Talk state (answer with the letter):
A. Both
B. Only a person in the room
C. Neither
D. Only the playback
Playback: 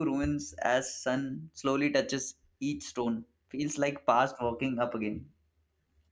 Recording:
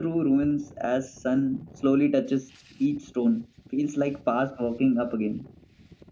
D